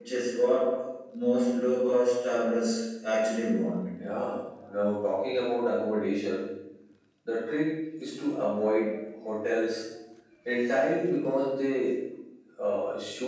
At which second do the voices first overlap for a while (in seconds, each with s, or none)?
none